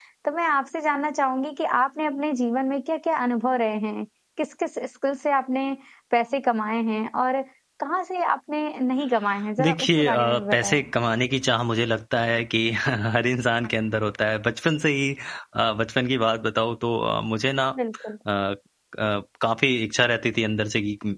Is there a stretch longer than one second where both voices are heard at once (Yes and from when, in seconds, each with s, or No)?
Yes, from 9.6 s